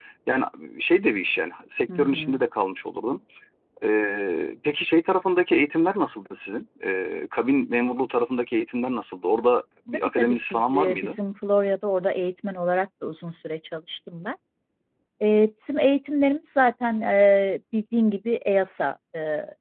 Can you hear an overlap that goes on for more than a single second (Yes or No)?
Yes